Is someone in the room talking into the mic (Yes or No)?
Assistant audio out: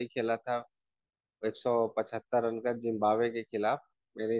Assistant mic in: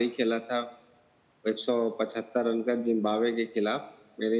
No